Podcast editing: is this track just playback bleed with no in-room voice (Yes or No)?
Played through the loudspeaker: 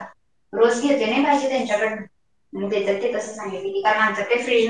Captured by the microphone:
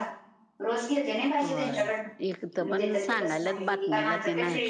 No